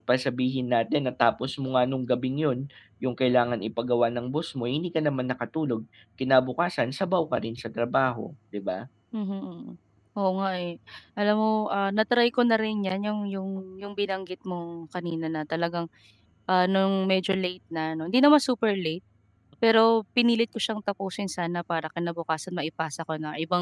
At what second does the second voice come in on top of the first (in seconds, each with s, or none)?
none